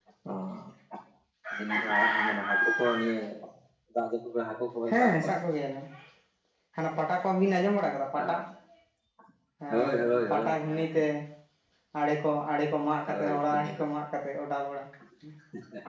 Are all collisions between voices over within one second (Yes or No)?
No